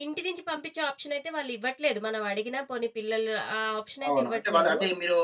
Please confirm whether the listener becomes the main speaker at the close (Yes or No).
Yes